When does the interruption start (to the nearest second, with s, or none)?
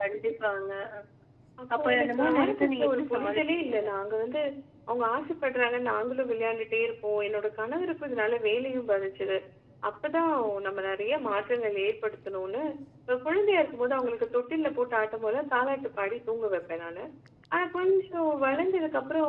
2 s